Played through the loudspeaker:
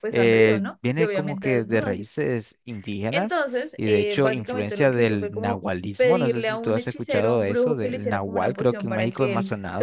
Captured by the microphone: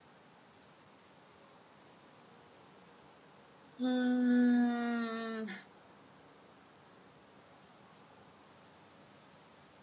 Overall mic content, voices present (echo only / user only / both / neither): user only